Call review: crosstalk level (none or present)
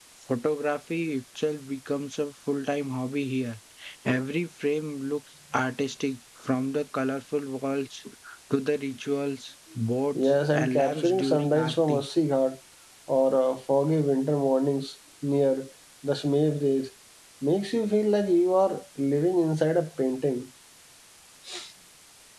present